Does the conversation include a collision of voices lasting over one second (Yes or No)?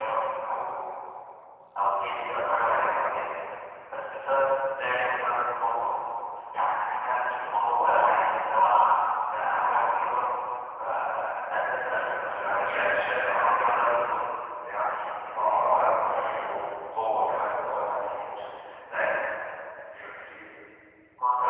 Yes